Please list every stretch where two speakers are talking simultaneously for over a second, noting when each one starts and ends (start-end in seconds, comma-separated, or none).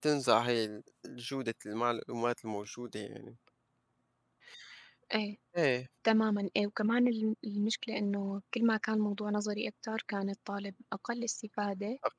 none